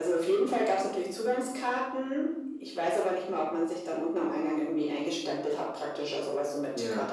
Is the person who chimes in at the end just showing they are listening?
Yes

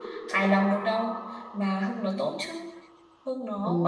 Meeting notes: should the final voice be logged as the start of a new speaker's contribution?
Yes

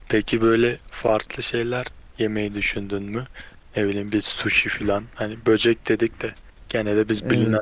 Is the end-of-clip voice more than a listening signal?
No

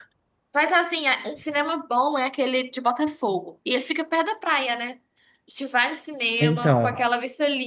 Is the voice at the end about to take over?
No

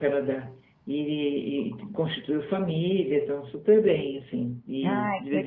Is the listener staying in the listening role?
Yes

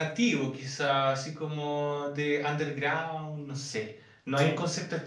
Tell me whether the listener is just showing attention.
Yes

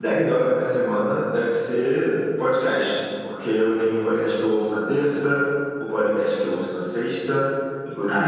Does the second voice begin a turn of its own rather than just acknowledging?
No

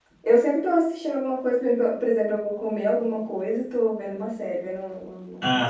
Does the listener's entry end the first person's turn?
Yes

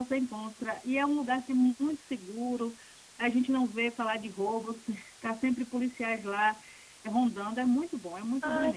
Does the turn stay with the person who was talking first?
No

